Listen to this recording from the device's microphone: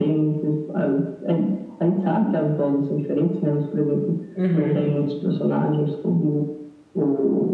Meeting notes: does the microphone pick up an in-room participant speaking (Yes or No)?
Yes